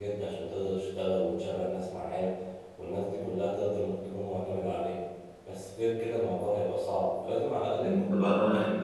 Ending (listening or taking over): taking over